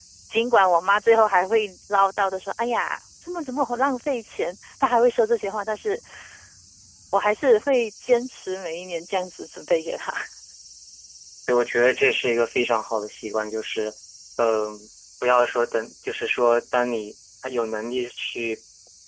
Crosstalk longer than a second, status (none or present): none